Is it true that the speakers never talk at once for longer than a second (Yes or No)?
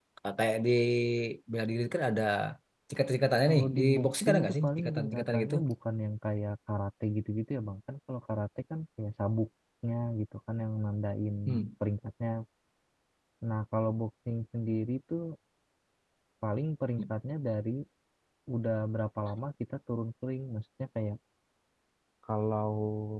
No